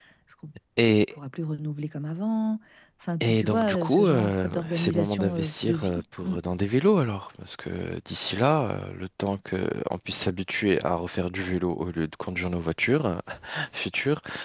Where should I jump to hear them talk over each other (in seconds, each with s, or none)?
3.2 s